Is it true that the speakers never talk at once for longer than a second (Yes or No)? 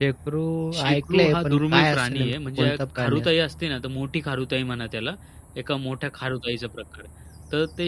No